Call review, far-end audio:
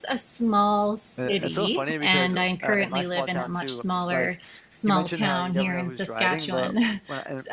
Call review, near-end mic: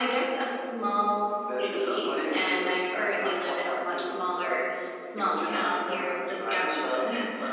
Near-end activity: none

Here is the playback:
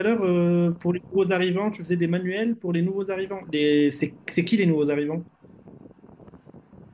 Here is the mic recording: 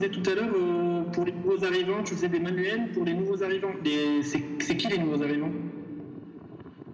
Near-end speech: none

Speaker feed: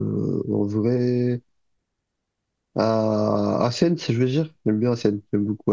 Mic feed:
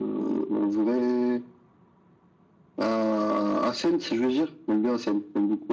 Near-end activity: none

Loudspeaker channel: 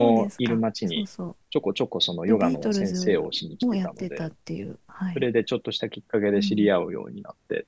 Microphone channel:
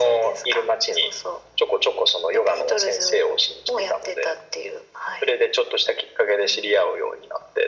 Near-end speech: none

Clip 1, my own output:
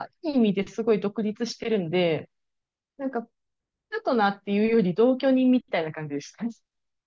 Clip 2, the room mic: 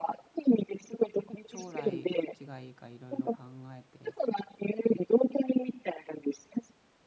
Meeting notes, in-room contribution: present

